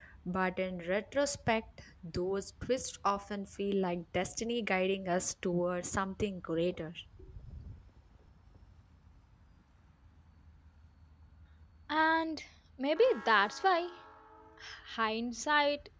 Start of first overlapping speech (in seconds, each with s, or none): none